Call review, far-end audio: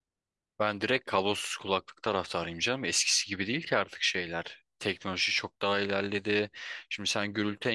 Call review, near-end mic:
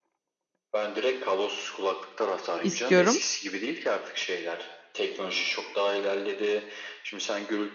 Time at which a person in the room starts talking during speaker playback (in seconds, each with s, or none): 2.6 s